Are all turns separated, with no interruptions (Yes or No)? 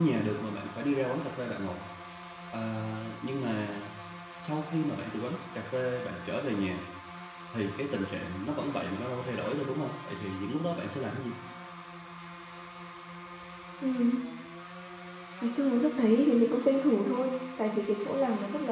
Yes